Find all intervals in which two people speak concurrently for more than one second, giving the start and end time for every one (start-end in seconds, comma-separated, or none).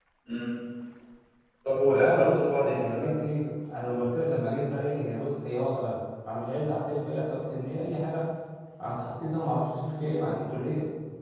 1.9-3.1